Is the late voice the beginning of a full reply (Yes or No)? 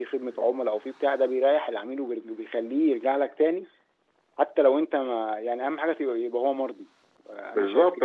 Yes